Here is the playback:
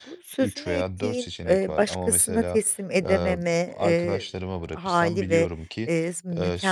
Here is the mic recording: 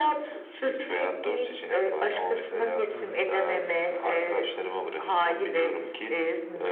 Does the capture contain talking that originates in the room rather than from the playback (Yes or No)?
Yes